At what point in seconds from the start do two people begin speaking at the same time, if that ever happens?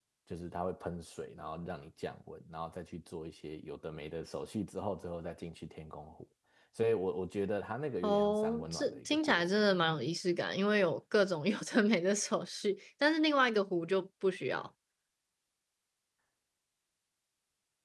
8.0 s

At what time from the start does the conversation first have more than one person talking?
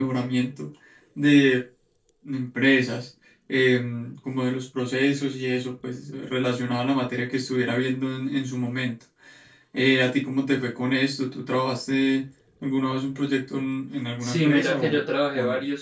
14.2 s

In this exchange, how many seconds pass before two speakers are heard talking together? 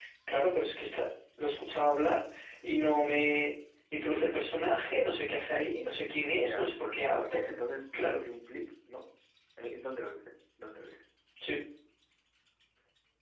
6.3 s

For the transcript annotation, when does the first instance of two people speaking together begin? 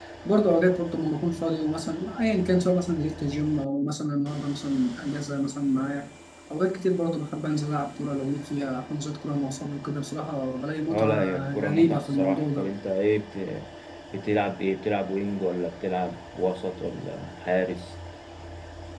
10.9 s

